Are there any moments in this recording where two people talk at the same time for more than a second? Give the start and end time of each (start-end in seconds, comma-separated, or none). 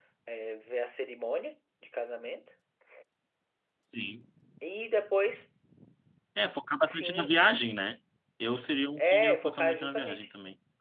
9.0-10.3